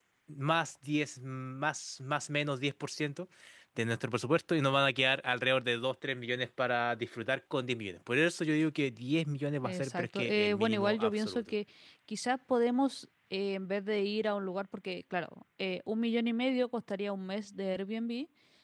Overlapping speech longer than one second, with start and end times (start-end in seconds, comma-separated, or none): 9.6-11.5